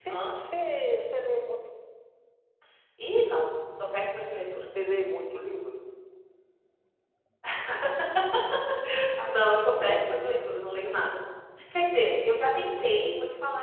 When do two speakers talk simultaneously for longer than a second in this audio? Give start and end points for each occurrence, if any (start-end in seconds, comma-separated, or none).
9.2-10.5